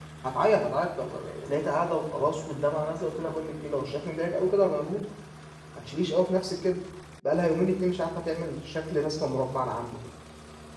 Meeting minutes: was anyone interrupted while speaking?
No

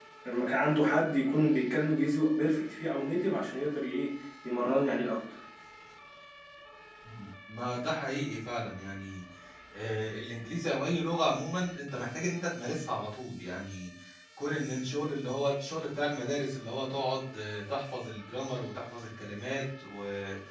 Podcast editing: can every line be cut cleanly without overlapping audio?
Yes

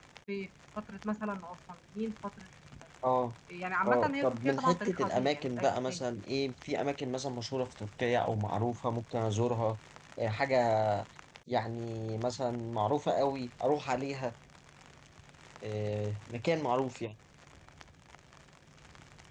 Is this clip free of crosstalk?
No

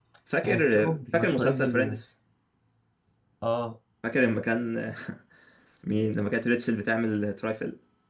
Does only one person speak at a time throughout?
No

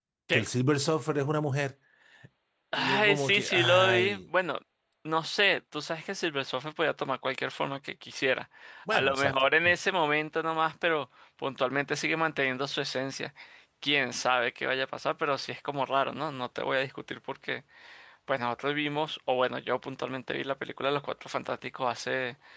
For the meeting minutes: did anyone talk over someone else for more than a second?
Yes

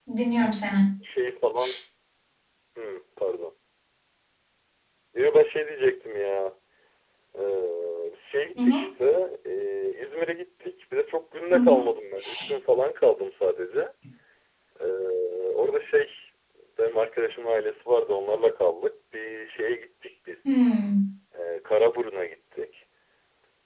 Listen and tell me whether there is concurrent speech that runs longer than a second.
No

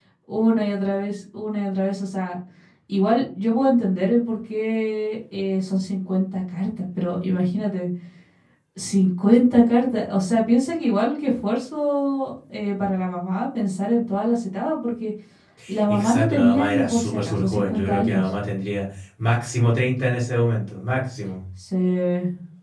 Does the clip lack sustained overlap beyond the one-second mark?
No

